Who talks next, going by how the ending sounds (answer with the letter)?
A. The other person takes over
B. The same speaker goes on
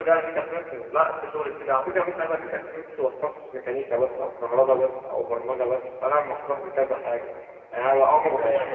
A